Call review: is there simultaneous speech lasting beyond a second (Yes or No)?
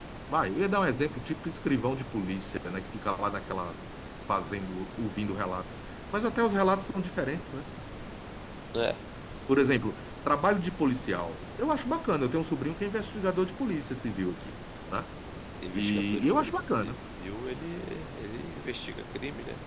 Yes